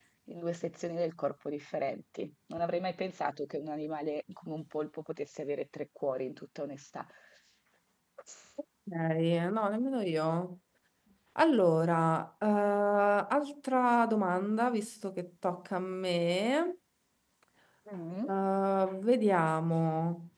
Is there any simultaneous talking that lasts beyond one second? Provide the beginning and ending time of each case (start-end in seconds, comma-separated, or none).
none